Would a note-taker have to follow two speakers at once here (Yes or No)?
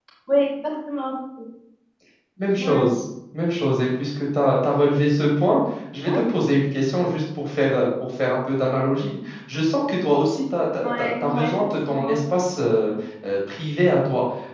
Yes